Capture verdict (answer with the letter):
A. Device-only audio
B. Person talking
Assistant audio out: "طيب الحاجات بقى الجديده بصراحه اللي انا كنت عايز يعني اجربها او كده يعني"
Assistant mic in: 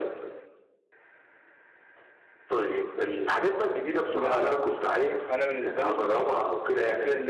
B